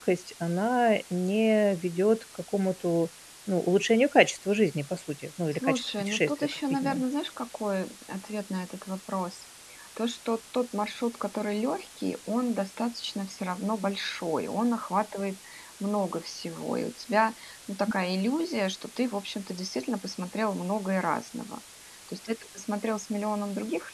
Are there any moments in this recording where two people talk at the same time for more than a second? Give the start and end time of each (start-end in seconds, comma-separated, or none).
5.5-7.0